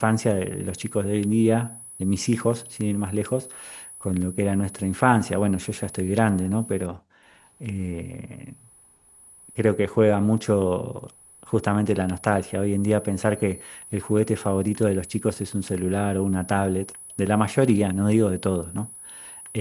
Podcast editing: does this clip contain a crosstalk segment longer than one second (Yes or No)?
No